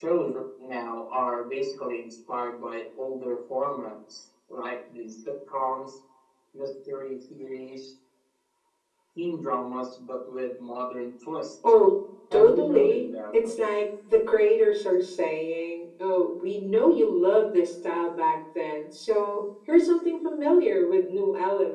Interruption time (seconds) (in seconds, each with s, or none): 12.3 s